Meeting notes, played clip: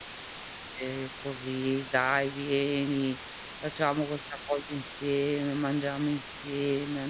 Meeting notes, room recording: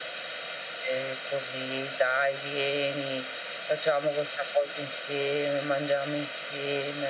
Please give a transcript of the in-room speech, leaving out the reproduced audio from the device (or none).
none